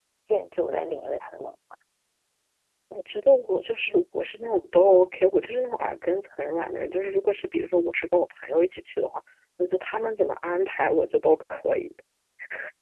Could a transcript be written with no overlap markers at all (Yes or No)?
Yes